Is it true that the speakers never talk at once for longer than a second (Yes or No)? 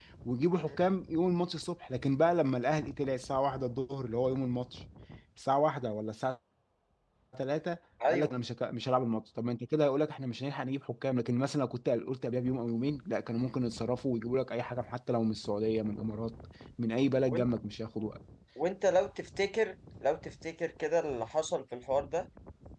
Yes